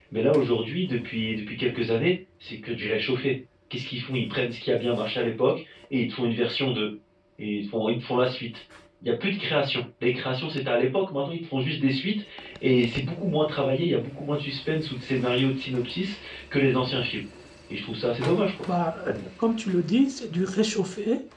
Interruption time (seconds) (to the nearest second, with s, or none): none